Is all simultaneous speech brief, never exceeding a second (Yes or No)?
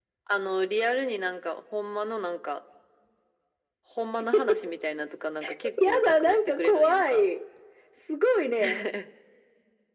No